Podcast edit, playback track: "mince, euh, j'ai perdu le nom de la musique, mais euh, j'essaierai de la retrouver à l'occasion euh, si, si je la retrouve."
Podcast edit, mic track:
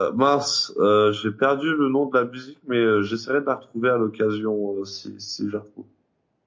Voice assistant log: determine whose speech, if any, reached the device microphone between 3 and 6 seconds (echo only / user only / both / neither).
echo only